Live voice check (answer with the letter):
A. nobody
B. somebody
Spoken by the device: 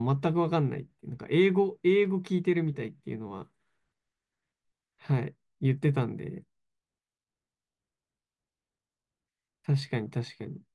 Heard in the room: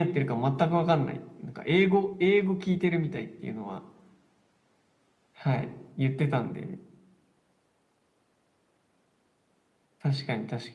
A